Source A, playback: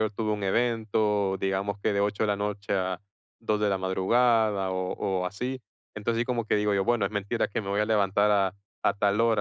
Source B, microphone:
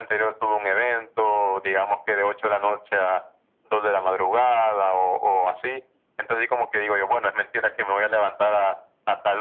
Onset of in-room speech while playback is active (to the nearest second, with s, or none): none